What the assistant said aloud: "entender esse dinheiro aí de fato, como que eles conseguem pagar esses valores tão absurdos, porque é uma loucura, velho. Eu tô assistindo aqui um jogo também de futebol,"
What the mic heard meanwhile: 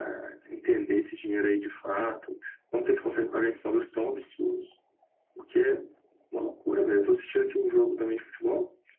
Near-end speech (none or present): none